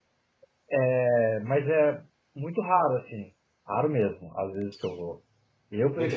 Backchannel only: Yes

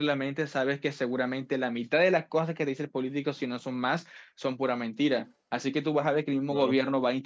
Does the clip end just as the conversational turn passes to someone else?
No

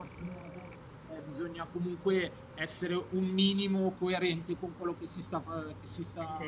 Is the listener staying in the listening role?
Yes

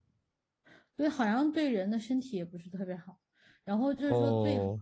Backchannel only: Yes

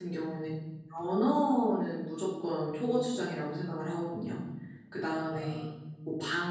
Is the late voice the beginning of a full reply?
No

